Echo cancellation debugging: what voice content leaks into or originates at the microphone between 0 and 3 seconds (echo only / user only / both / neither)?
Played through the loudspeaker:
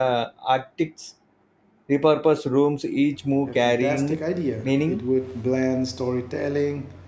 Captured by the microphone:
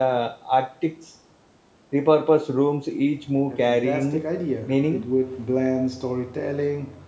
echo only